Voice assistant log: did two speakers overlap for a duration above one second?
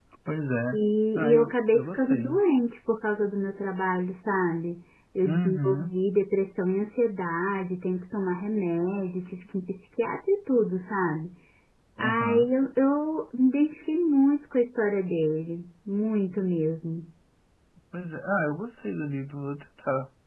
Yes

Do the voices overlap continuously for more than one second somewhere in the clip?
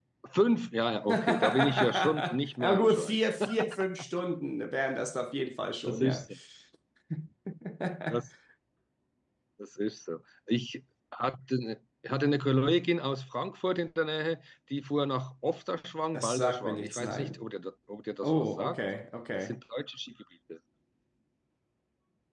Yes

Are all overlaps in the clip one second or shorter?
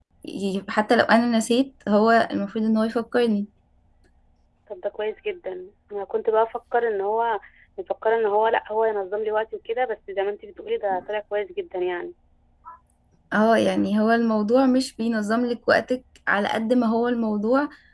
Yes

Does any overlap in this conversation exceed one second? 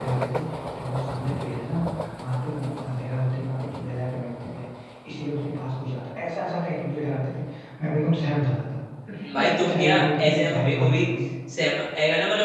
Yes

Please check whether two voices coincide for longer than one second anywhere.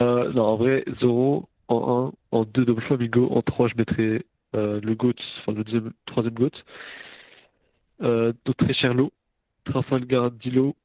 No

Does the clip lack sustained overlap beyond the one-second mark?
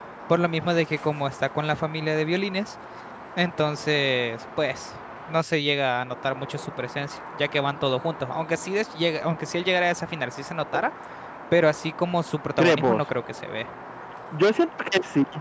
Yes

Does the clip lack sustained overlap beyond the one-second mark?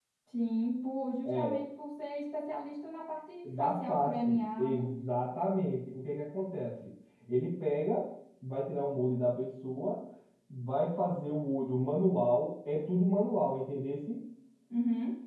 No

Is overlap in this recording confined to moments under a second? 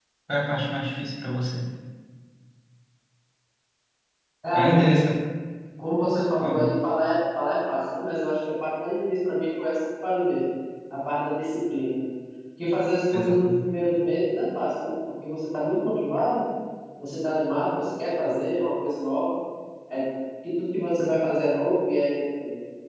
Yes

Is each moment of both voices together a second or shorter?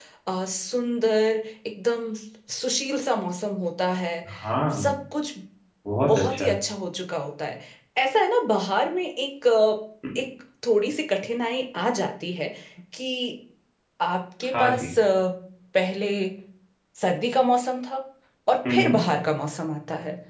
Yes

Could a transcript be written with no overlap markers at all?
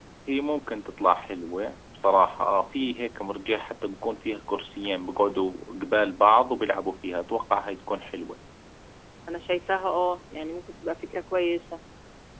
Yes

